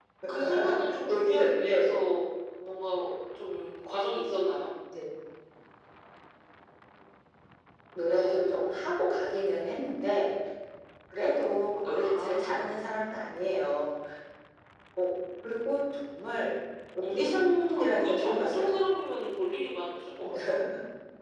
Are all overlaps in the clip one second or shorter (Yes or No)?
No